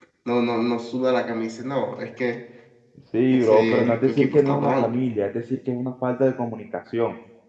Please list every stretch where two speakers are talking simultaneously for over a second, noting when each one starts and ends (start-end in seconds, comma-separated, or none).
3.3-4.9